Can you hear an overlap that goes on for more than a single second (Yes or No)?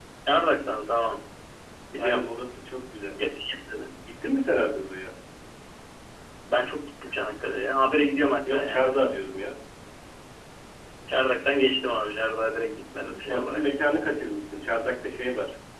No